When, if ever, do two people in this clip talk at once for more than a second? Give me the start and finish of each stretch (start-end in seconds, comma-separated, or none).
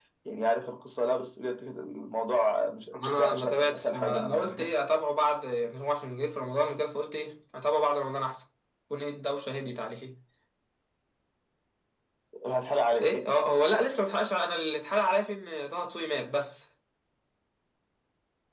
2.9-4.7